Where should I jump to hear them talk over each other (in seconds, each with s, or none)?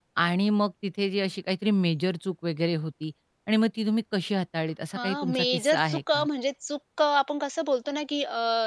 5.0 s